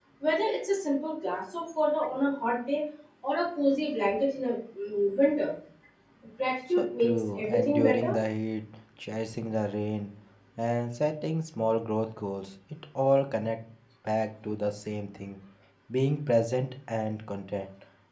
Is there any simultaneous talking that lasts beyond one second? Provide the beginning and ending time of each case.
6.8-8.1

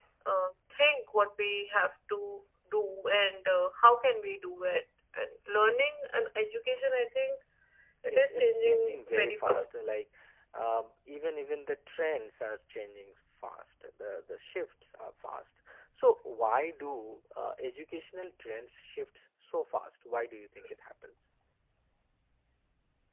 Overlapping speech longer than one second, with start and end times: 8.1-9.8

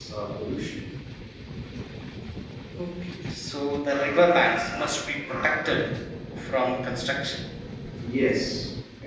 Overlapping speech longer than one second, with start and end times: none

